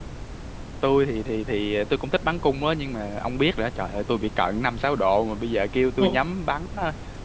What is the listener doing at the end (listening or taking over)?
listening